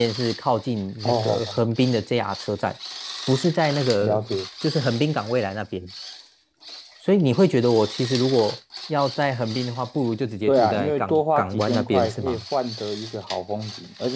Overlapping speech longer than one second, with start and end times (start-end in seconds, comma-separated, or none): 10.5-12.4